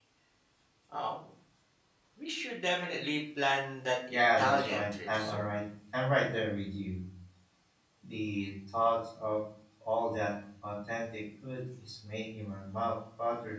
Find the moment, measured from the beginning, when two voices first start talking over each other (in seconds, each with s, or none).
4.1 s